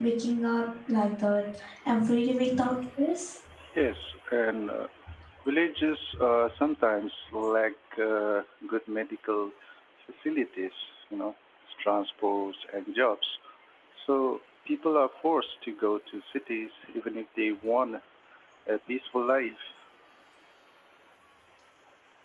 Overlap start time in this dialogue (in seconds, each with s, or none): none